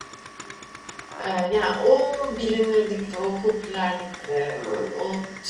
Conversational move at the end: listening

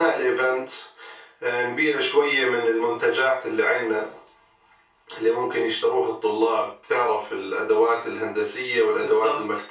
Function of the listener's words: listening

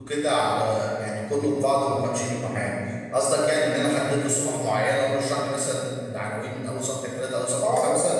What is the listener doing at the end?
taking over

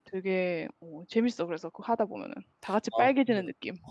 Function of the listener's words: taking over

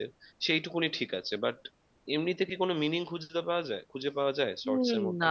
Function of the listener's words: taking over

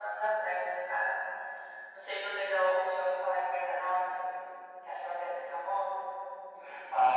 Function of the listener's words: taking over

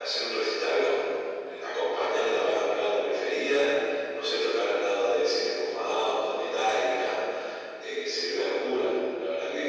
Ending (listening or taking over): taking over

